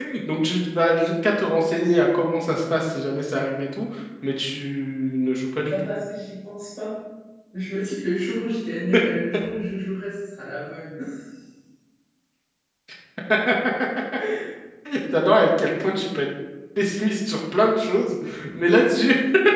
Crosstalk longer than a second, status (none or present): none